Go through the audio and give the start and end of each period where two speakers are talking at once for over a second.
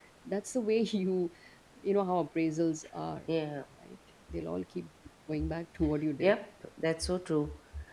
none

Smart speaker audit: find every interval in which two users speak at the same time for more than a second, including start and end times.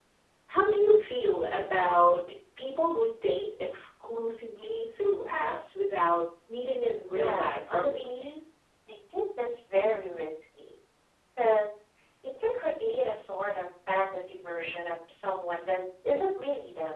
6.8-8.4

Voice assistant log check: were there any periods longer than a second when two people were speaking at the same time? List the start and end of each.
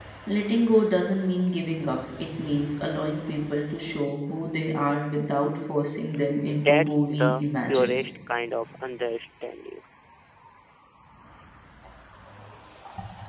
6.5-8.0

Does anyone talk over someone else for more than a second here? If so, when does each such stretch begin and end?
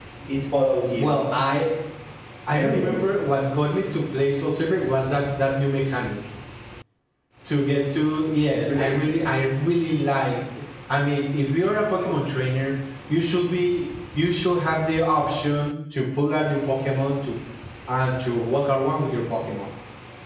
none

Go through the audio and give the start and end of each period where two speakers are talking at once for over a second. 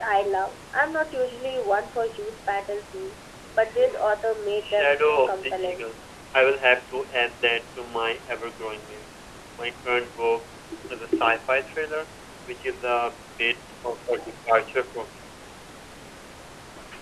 4.6-5.8

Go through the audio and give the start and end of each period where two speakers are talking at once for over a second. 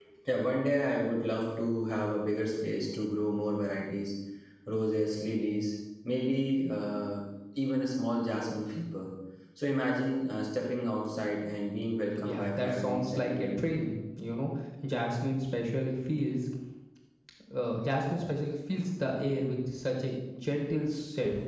12.2-13.8

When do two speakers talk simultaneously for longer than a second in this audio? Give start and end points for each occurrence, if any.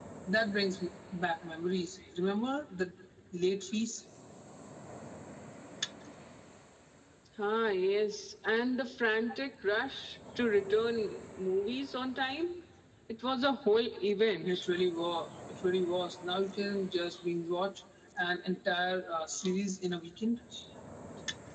none

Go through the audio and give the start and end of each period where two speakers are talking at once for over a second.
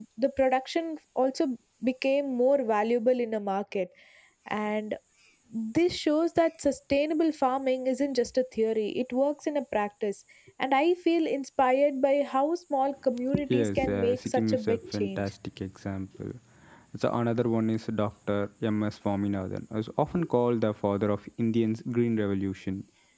13.5-15.3

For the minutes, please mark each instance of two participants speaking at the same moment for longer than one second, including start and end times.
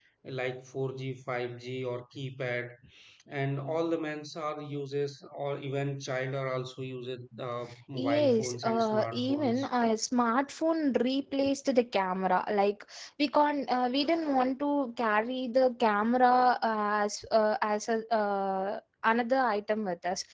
7.9-9.6

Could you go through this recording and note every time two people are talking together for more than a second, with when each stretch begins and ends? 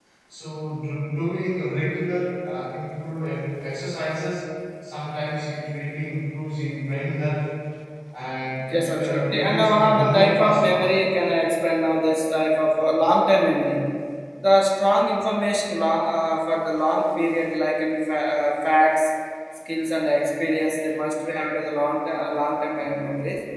8.7-10.9

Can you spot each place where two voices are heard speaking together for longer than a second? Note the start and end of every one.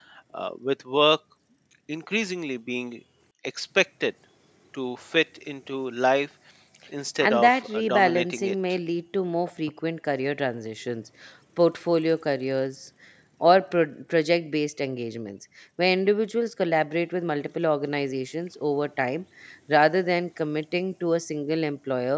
7.2-8.6

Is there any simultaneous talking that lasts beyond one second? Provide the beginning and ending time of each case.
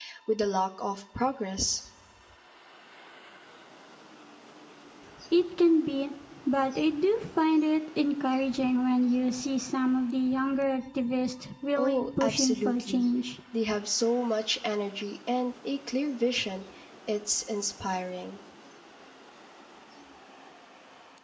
11.8-13.1

